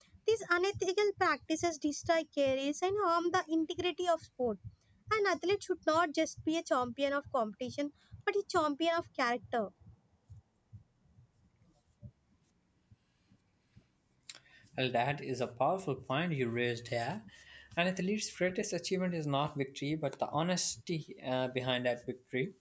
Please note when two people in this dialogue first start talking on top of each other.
none

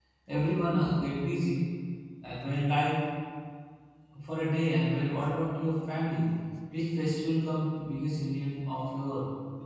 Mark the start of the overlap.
none

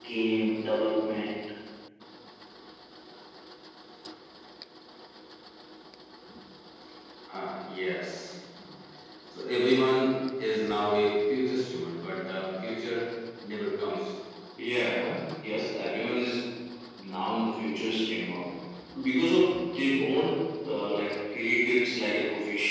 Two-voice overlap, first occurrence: none

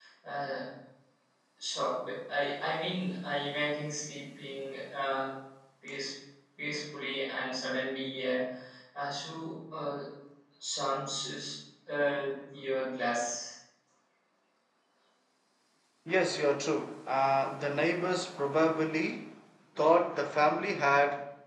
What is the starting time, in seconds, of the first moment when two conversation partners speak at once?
none

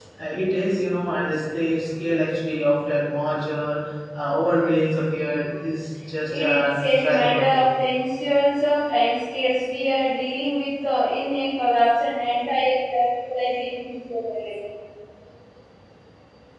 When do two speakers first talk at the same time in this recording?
6.3 s

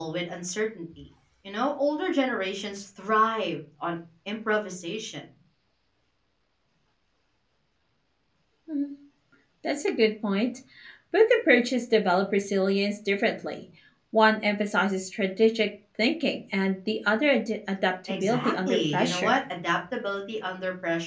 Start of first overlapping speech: 18.1 s

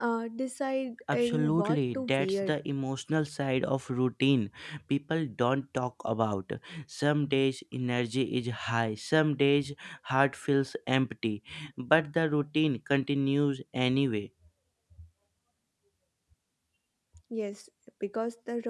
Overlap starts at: 1.1 s

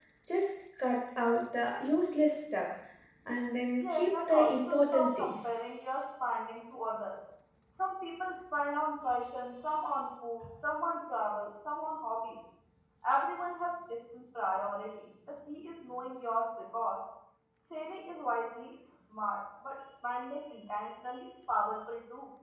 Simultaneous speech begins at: 3.8 s

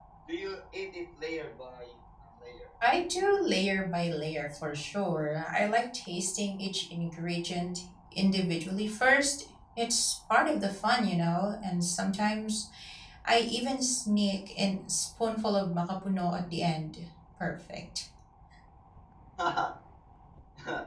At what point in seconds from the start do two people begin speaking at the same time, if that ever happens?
none

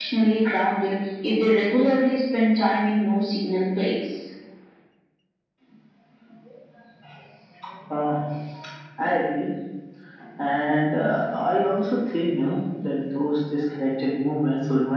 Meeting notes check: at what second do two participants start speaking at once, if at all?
none

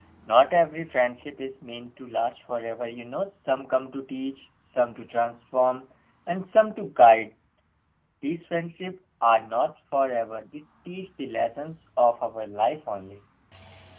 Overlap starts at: none

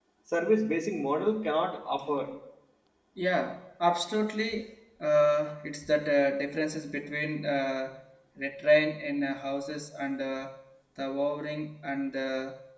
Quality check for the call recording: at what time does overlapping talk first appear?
none

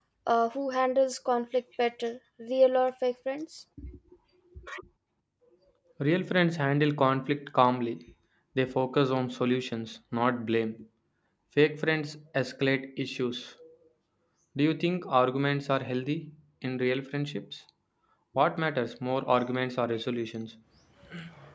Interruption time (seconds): none

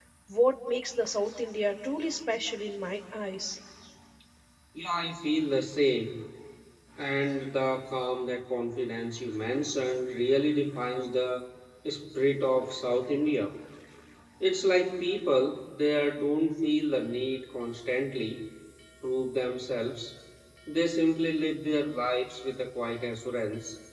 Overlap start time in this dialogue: none

